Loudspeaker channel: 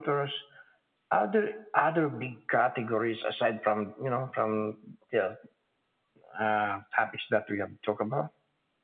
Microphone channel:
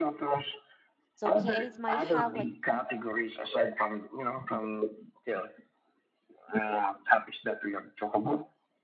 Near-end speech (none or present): present